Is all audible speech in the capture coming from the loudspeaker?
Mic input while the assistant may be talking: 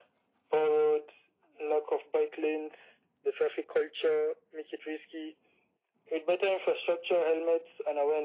Yes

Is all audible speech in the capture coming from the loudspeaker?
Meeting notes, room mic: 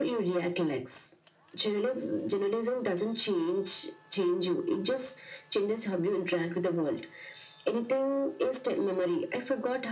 Yes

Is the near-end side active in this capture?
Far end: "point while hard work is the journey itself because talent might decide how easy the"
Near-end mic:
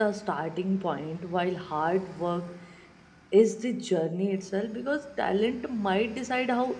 No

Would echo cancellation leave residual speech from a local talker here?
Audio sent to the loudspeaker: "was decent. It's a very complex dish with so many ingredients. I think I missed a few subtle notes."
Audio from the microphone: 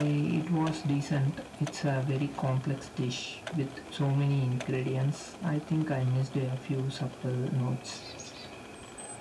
No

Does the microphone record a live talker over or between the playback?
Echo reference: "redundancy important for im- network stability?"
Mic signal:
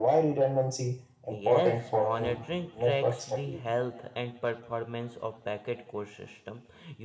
Yes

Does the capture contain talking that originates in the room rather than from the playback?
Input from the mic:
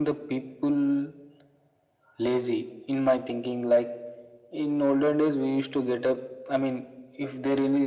No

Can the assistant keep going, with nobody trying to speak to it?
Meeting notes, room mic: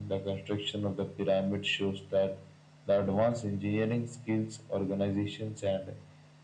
Yes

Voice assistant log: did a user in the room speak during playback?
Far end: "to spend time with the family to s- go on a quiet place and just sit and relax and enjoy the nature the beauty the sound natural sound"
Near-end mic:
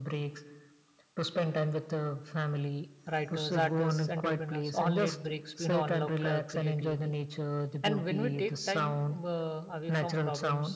Yes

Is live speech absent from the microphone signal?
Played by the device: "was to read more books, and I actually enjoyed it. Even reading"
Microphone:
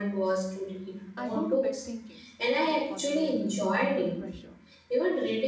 No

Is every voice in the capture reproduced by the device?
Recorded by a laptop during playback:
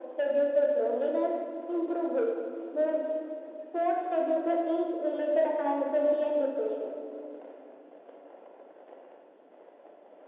Yes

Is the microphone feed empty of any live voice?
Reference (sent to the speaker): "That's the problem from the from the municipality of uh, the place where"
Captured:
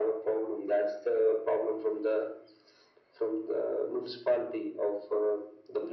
Yes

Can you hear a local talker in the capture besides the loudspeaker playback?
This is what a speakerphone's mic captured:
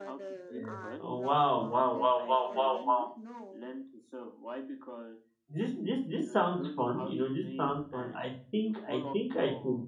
Yes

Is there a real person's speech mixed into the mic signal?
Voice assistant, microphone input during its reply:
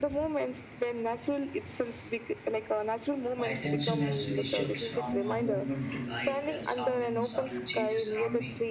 Yes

